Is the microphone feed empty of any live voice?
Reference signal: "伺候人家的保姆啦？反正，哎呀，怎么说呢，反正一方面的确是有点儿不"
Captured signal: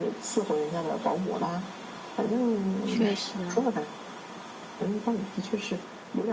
No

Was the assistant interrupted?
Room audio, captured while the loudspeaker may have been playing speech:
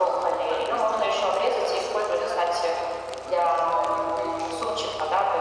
No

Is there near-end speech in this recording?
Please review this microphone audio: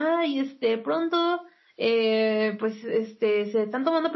No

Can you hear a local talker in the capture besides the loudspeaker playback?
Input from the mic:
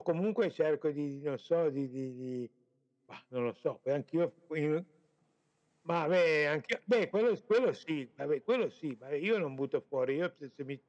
No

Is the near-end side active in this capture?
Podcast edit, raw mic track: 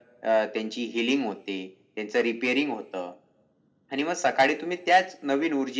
No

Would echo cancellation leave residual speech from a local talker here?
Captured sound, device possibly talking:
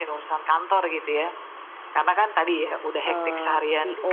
Yes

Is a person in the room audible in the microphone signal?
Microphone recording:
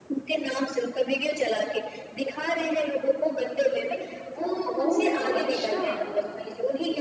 Yes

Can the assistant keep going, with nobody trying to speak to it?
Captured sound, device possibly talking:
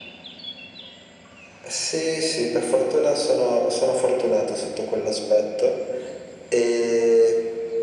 Yes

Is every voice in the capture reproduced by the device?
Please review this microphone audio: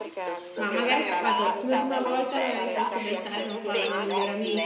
No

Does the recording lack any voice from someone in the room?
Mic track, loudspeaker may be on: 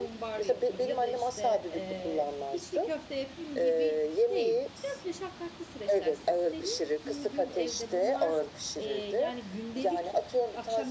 No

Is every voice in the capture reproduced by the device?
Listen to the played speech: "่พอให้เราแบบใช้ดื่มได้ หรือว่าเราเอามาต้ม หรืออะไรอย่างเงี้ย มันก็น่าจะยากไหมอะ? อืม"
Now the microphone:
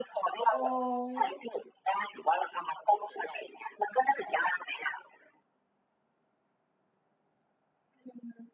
No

